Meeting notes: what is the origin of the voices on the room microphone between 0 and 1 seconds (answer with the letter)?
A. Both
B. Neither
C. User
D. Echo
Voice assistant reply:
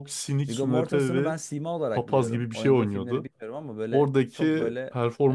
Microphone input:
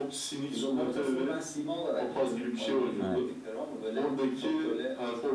D